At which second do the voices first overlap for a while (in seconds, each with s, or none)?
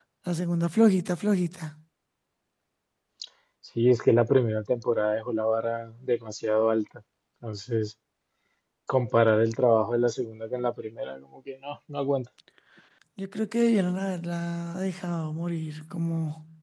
none